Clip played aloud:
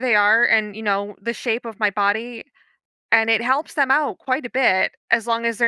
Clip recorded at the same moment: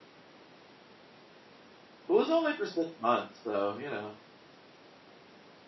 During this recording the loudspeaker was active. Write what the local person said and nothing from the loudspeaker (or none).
It was only for 6 months, so, you know,